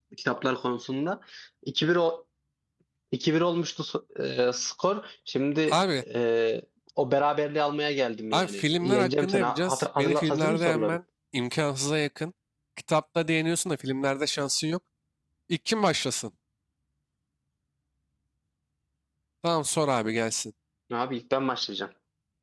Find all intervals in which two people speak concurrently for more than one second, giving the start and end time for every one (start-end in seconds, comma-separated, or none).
8.3-11.0